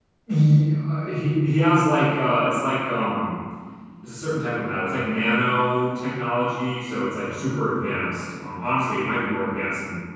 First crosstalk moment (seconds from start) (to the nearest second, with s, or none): none